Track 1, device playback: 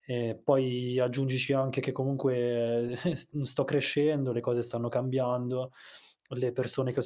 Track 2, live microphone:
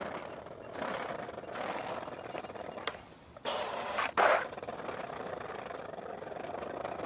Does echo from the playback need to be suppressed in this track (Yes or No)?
No